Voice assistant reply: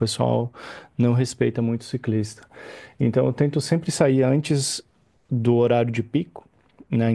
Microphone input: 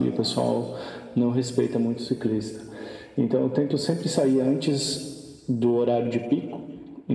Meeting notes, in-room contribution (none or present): none